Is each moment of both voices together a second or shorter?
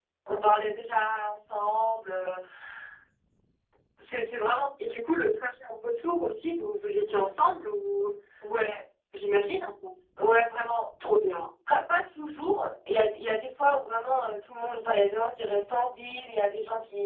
Yes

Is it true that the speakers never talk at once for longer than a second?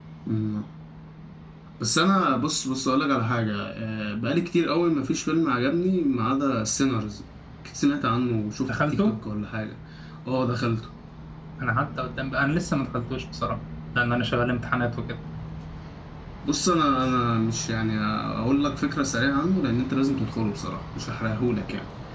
Yes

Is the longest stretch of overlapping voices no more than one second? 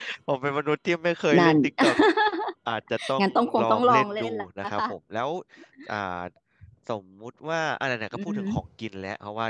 No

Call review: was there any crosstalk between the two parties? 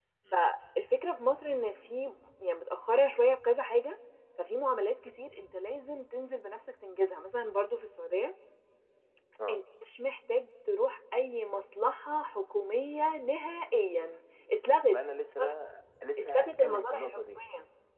Yes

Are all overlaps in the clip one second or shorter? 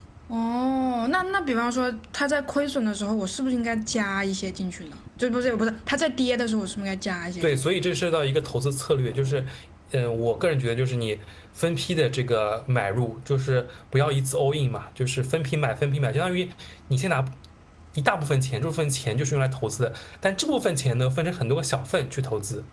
Yes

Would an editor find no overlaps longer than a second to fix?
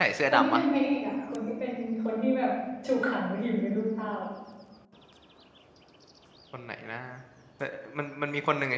Yes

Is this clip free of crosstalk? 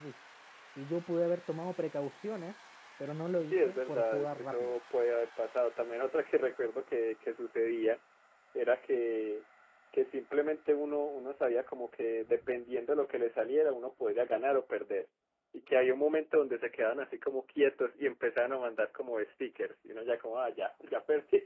No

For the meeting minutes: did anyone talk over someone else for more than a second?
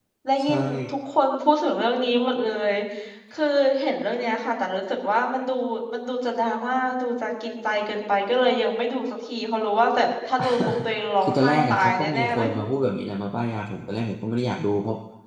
Yes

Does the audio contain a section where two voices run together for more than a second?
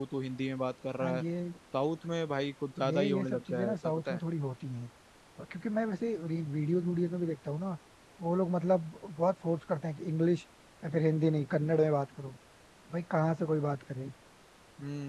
Yes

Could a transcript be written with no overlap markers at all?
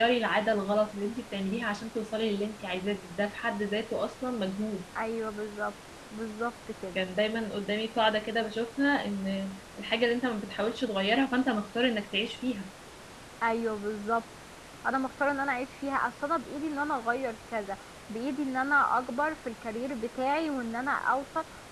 Yes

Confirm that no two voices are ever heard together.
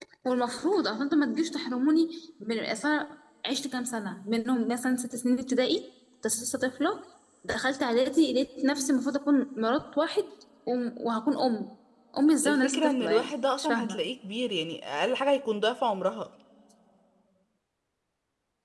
No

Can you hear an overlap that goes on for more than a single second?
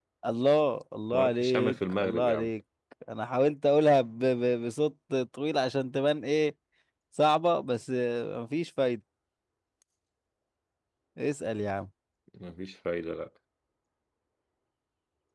Yes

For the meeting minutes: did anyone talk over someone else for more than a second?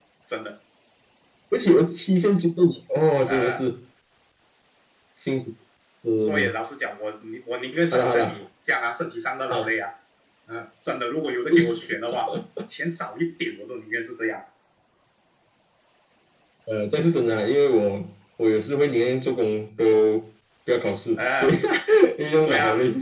No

